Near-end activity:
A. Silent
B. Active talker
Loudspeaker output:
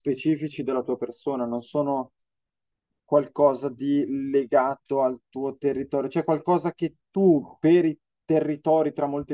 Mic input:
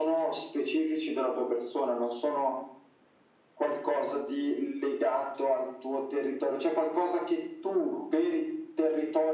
A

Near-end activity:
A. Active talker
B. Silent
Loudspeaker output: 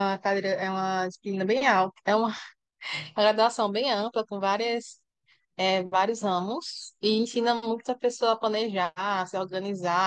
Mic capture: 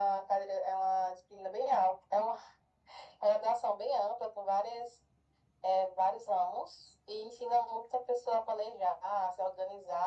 B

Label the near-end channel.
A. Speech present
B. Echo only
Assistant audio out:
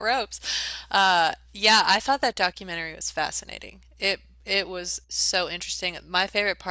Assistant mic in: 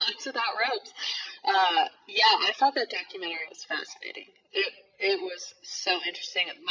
B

